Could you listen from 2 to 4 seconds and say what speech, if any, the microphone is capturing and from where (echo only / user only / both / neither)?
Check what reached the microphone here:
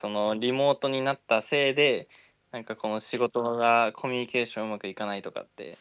user only